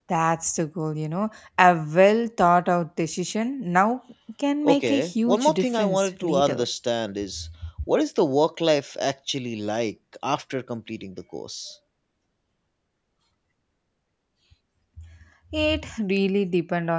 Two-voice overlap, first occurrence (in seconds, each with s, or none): 4.6 s